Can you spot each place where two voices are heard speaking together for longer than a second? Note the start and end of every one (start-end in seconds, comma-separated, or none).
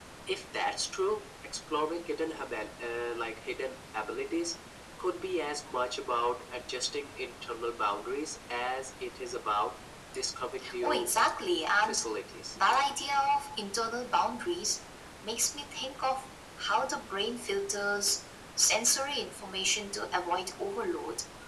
none